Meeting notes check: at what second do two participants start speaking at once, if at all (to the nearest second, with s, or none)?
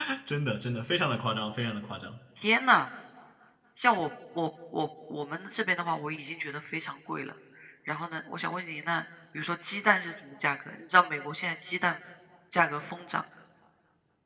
none